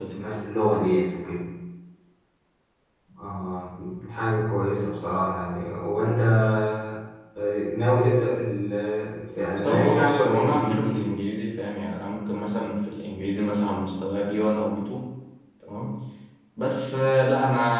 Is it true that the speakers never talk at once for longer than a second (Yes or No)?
No